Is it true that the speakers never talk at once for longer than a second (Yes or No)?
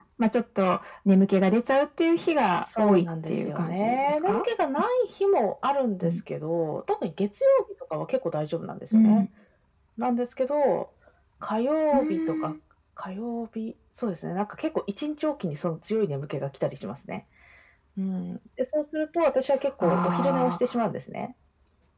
No